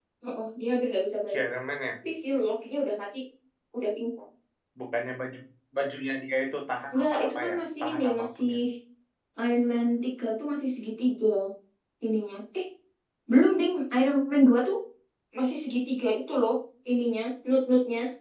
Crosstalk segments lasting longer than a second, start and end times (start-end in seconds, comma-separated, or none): 6.9-8.5